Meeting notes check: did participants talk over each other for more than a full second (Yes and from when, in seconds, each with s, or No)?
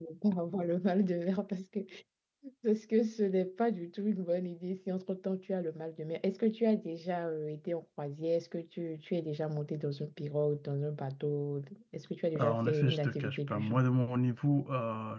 Yes, from 12.3 s